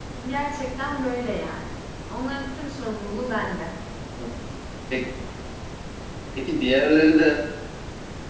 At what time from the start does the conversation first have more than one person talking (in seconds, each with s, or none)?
none